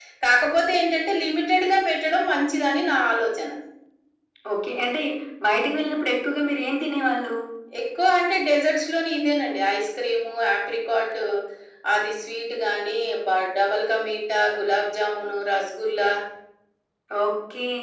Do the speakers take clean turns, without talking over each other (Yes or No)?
Yes